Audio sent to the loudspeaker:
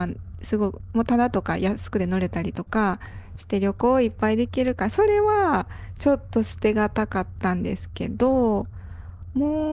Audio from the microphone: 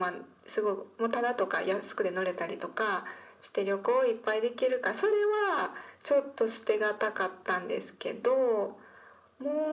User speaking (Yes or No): No